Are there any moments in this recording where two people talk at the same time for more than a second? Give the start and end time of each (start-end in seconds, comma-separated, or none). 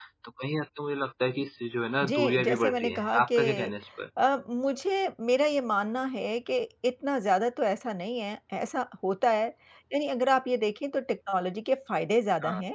2.0-3.7